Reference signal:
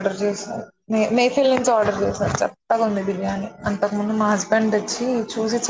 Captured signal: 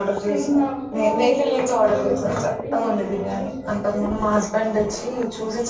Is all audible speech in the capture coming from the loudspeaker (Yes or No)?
No